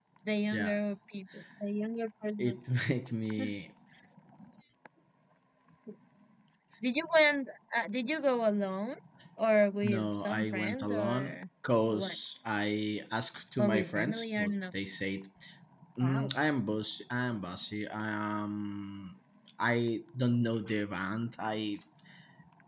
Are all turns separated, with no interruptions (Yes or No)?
No